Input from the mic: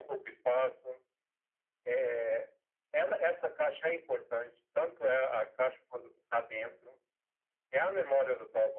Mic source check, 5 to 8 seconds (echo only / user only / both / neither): echo only